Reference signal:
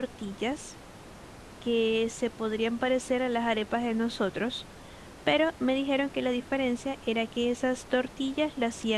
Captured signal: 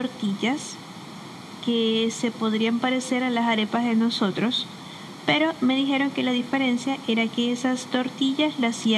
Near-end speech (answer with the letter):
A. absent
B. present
A